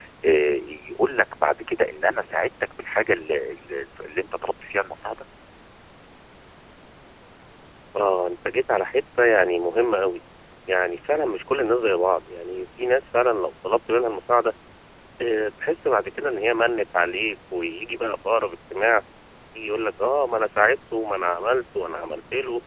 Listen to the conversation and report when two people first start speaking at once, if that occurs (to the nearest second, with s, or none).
none